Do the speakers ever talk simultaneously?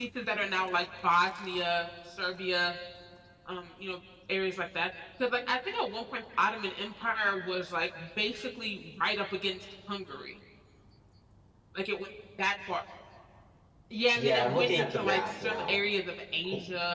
Yes, from 14.2 s

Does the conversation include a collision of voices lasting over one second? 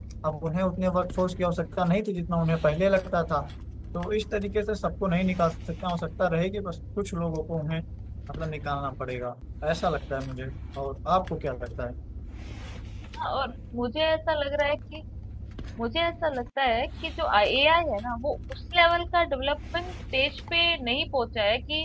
No

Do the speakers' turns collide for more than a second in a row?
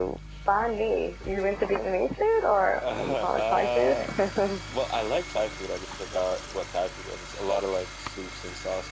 Yes, from 2.6 s

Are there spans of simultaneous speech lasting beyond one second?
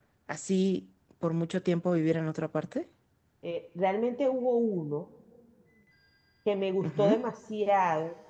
No

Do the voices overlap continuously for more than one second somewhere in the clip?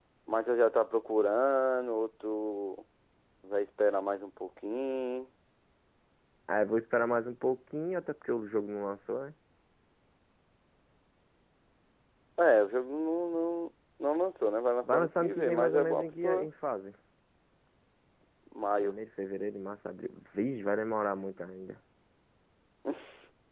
Yes, from 14.8 s

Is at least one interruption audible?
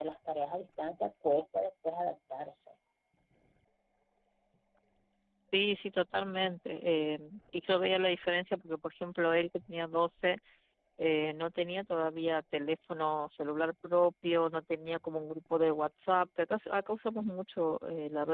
No

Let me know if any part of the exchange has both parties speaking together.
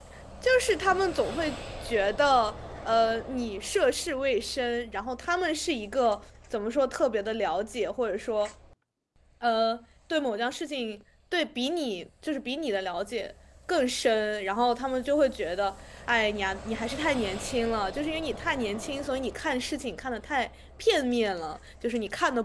No

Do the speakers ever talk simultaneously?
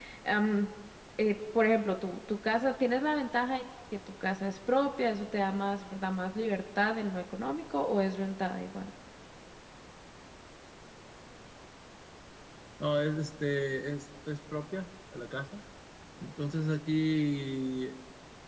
No

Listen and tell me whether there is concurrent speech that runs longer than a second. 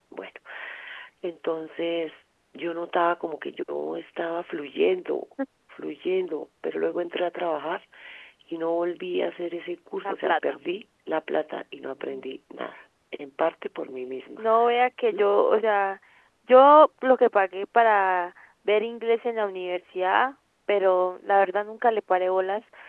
No

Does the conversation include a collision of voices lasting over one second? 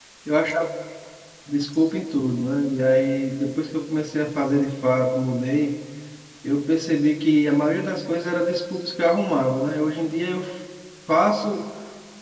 No

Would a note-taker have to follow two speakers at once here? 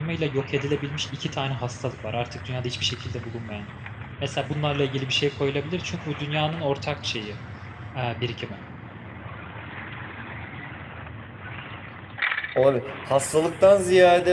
No

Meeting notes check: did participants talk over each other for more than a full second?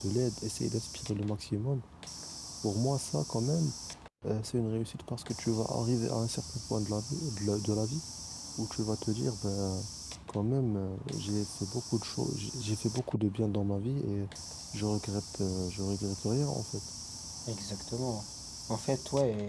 No

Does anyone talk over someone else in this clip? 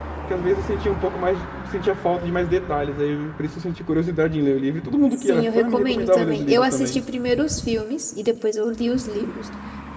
Yes, from 5.2 s

